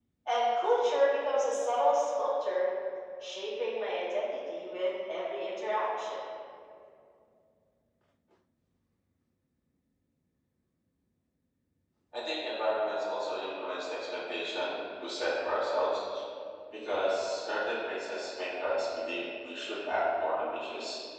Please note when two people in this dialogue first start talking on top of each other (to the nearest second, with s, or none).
none